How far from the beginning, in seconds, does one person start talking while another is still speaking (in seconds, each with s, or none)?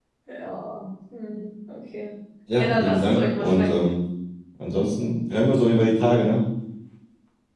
2.6 s